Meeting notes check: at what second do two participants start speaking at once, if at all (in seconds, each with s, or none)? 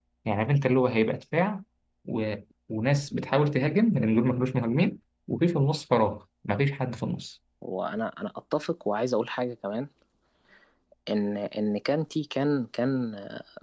none